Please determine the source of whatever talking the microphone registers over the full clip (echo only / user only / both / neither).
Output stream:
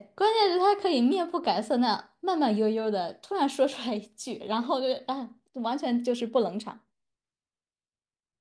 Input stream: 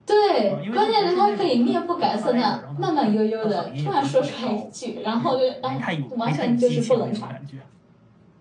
both